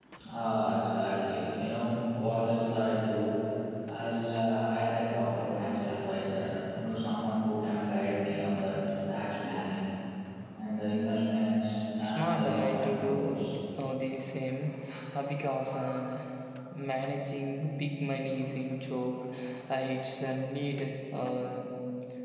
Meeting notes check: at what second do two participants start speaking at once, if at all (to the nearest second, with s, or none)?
12 s